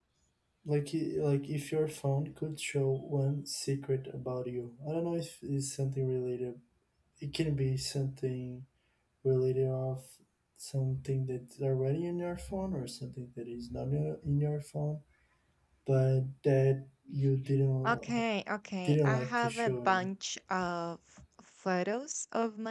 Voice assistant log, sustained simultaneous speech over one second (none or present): present